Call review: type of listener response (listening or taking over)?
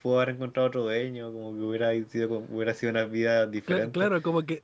taking over